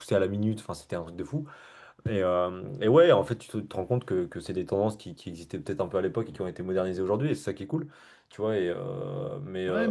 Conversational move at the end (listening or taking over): taking over